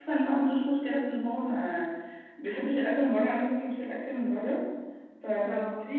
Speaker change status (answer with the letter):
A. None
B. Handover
A